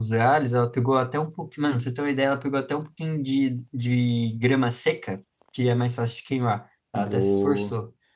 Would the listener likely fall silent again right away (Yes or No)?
No